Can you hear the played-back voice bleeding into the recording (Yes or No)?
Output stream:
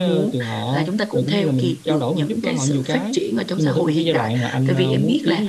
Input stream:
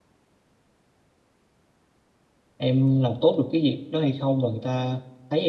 No